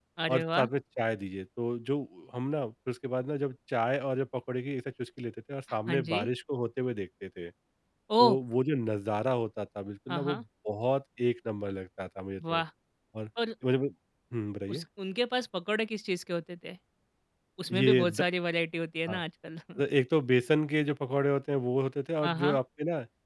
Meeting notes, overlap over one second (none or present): none